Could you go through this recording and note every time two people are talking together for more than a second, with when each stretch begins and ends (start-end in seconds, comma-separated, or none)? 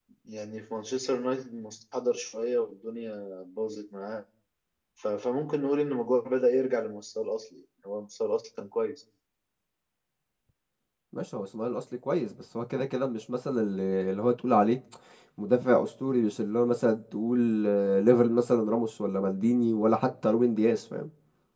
none